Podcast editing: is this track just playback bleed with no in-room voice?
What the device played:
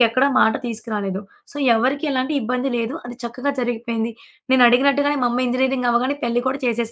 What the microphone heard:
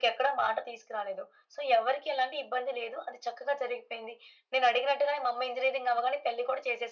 Yes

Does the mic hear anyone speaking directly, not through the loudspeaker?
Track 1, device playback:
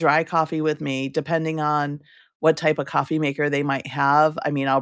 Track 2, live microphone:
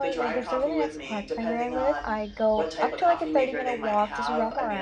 Yes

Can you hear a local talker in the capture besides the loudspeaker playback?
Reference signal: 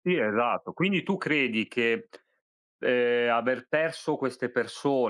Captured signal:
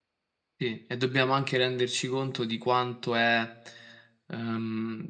Yes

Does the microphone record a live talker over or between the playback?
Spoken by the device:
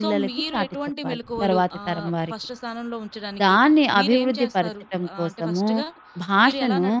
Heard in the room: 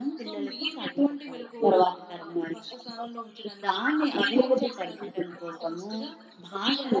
No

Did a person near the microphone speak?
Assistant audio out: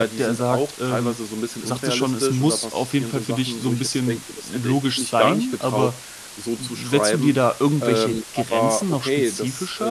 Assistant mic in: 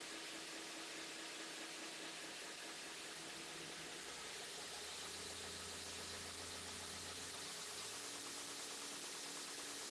No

